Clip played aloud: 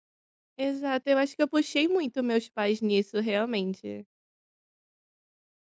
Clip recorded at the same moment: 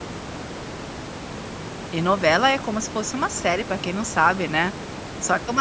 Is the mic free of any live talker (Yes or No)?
No